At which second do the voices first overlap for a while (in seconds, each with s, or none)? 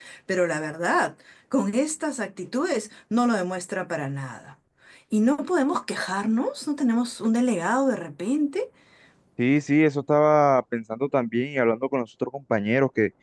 none